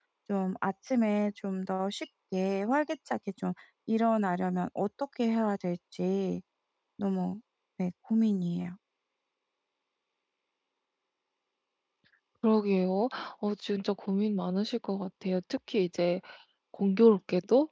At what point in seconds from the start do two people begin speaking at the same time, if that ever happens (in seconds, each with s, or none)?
none